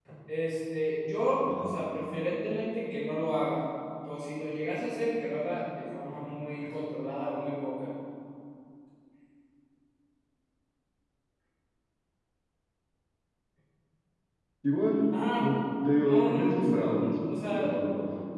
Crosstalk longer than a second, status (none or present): present